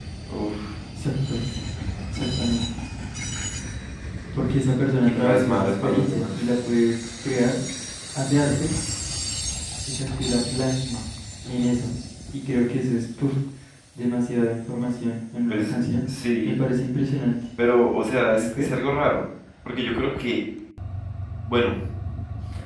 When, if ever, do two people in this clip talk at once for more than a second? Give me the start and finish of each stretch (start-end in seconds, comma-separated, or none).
5.0-6.4